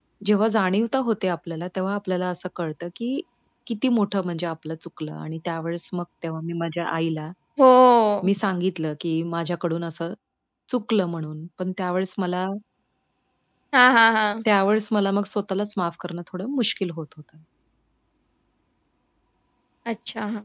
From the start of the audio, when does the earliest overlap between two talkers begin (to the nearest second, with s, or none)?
none